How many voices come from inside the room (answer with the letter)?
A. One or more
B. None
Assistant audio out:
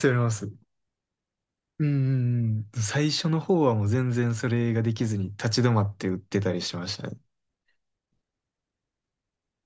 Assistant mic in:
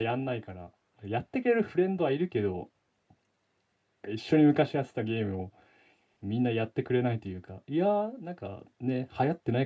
A